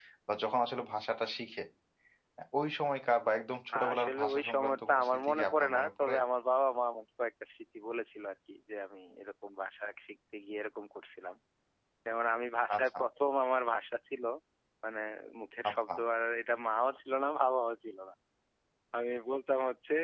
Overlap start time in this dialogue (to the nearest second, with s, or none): 4 s